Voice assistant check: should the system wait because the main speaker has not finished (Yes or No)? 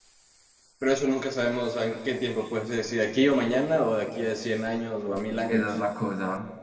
No